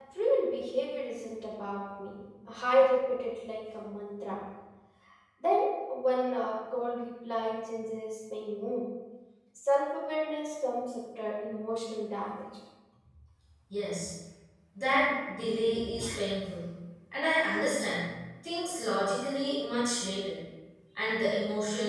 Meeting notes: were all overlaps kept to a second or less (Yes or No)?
Yes